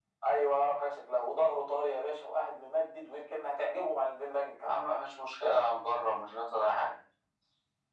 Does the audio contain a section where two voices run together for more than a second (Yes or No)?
No